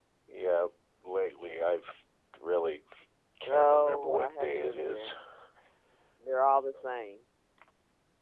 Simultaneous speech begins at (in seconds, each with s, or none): 3.5 s